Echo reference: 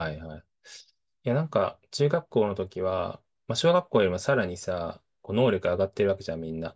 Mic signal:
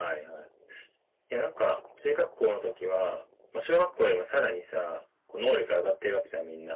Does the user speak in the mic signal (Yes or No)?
No